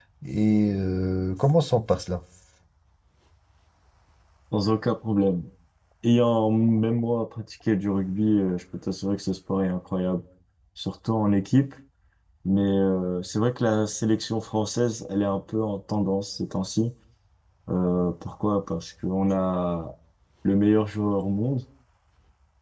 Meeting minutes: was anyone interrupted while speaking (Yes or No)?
No